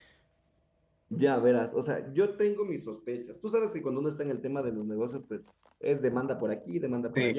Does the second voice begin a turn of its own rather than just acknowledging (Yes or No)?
Yes